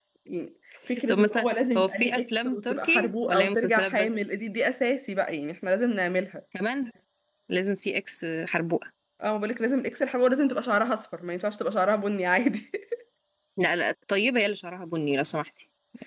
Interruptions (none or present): present